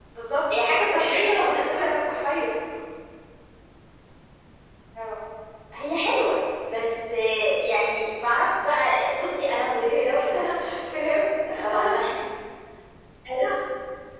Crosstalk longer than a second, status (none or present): present